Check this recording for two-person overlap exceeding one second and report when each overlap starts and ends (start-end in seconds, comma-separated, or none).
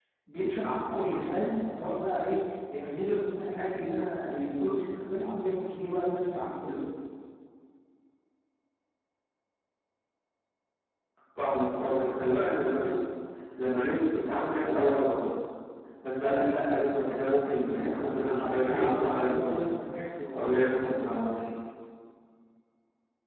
17.6-19.6